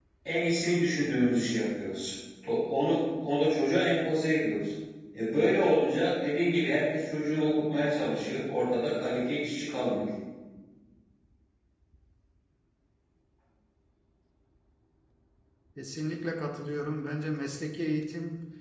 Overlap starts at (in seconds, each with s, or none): none